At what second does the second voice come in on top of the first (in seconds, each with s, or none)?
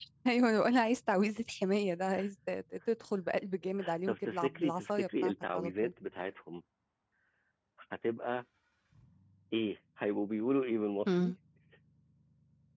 4.1 s